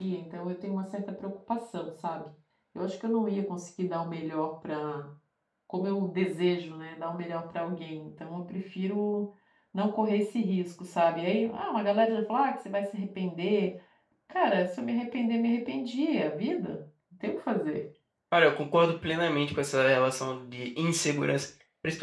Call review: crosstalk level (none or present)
none